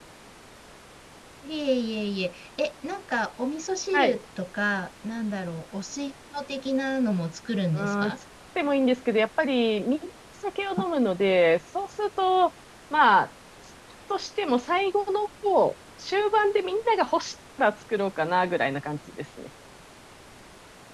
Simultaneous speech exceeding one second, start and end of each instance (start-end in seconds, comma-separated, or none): none